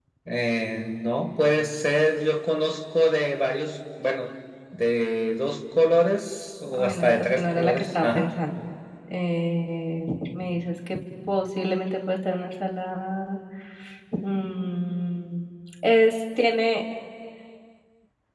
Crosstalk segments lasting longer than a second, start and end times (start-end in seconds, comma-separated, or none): 6.7-8.3